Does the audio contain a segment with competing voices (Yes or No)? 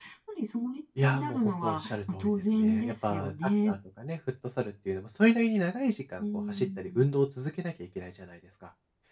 Yes